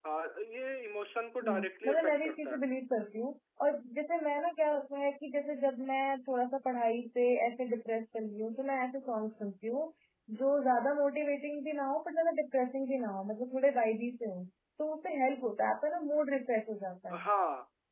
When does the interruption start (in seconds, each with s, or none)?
1.4 s